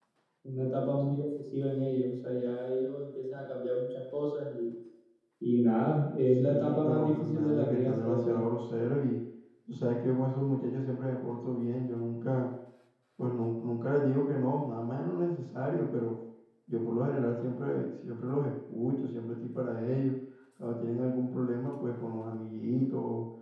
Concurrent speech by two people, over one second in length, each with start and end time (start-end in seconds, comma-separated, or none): 6.3-8.4